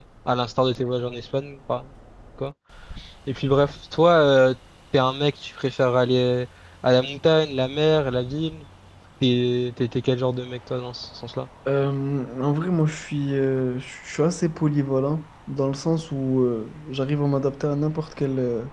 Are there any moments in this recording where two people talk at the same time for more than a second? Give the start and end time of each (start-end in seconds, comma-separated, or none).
none